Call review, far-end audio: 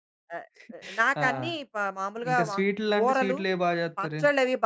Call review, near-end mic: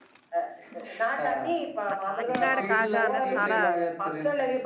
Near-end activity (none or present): present